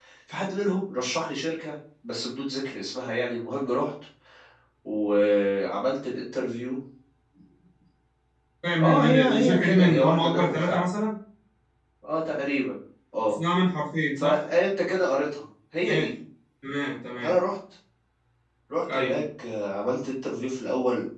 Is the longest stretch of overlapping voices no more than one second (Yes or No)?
No